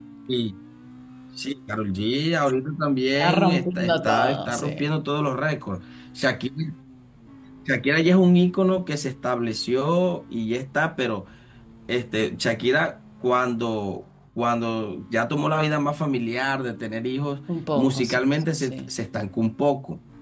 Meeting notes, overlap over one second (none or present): present